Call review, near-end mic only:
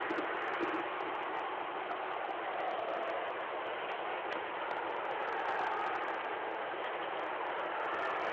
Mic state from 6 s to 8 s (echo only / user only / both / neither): neither